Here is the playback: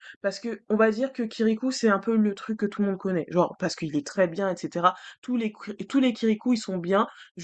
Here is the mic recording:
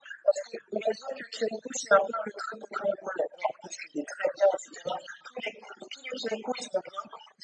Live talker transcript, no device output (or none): none